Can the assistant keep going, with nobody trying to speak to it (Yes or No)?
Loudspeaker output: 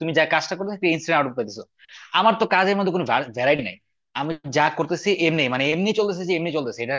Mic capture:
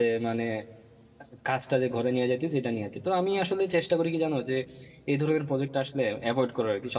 No